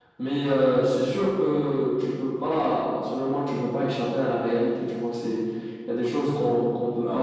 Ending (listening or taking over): listening